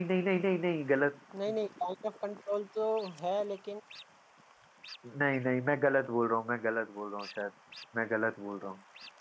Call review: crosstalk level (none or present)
none